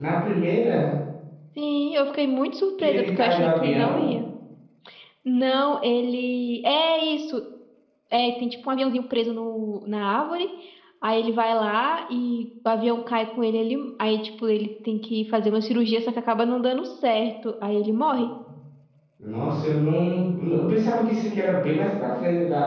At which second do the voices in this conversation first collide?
2.8 s

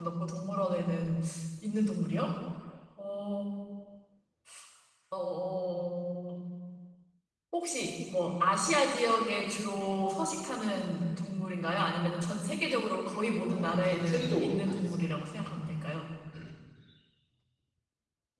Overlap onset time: 13.5 s

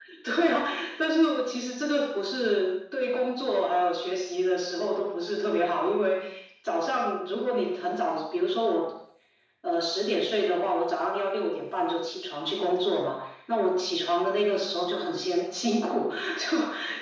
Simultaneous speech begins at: none

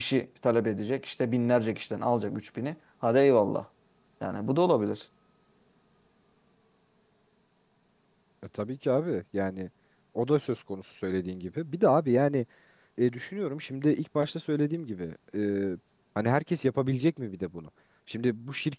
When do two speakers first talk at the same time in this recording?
none

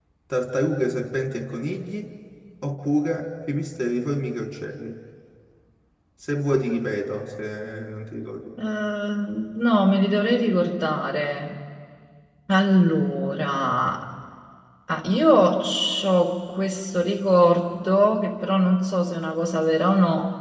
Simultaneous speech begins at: none

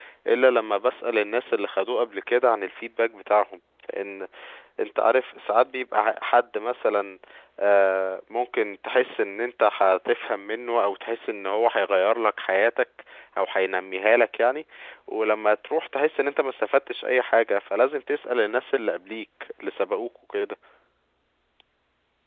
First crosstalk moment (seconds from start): none

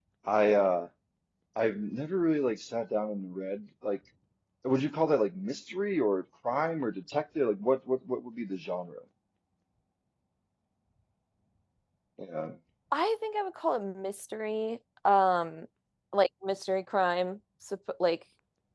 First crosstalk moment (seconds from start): none

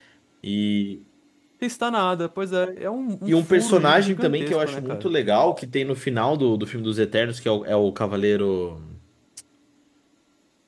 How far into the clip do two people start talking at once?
3.3 s

